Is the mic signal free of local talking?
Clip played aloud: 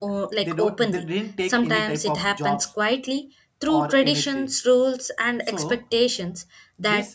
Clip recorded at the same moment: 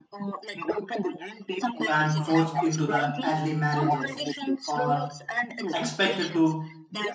No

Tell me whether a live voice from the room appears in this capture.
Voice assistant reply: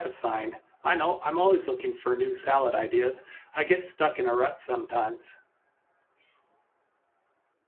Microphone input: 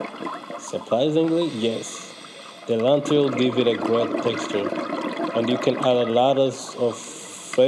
Yes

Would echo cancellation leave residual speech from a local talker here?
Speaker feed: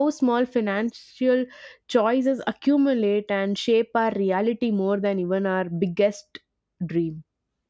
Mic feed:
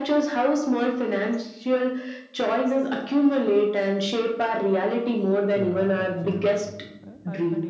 Yes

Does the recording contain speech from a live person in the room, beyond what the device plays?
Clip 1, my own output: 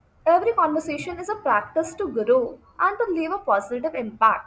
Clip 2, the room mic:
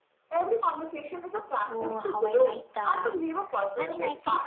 Yes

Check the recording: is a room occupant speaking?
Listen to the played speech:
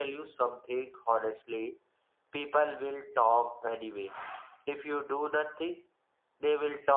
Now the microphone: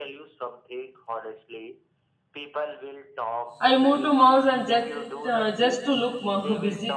Yes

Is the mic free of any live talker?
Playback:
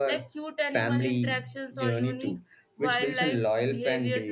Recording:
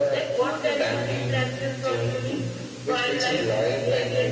No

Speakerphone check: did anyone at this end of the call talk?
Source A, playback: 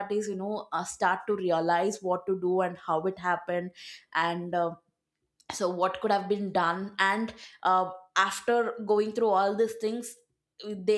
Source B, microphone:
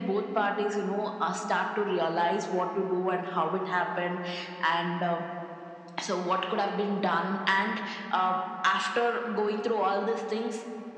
No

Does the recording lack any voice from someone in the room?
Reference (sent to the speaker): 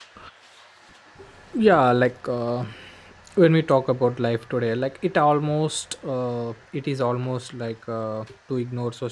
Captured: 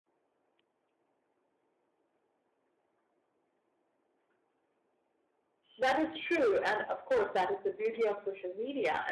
No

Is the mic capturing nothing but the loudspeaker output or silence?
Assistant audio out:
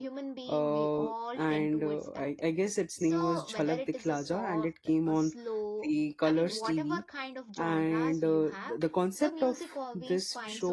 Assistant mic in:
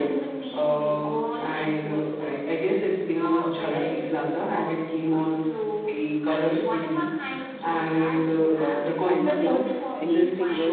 No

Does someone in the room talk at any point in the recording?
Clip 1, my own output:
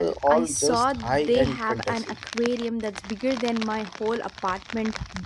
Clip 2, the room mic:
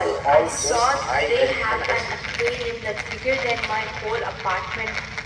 No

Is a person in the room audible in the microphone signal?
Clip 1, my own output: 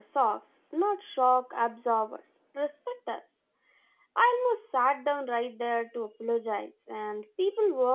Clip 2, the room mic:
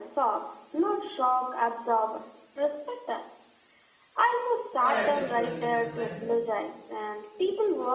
Yes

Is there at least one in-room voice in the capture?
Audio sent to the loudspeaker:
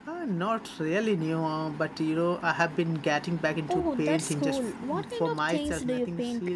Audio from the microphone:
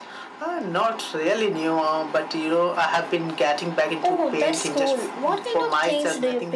No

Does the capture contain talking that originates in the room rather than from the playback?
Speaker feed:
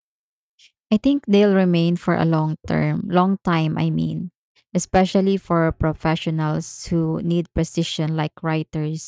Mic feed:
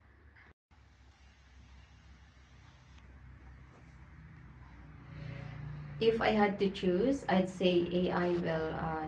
Yes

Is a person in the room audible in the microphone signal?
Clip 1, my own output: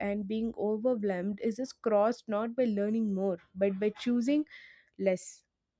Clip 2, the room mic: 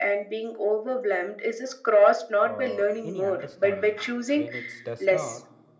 Yes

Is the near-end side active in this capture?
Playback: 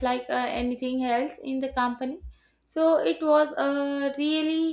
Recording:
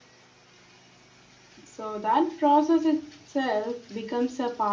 Yes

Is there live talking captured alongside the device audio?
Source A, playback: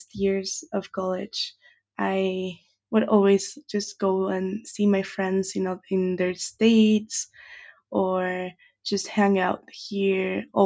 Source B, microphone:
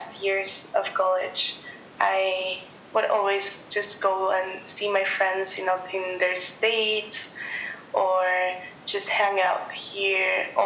No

